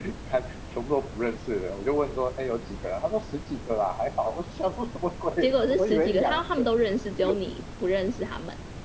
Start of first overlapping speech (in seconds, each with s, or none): 5.4 s